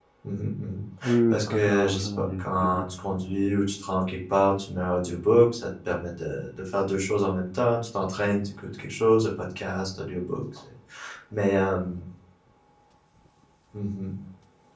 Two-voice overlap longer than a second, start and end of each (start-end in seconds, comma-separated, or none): 1.3-2.9